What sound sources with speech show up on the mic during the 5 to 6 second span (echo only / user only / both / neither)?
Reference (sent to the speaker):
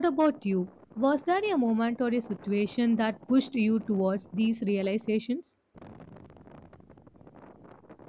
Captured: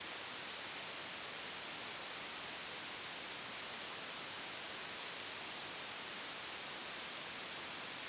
neither